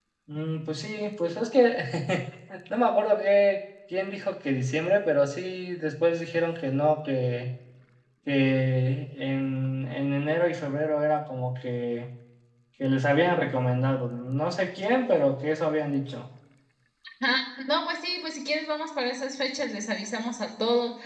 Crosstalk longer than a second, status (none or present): none